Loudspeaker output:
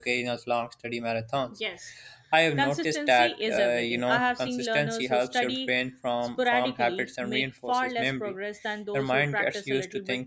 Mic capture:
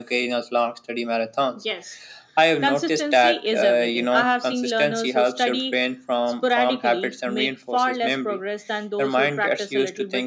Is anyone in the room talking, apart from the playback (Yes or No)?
No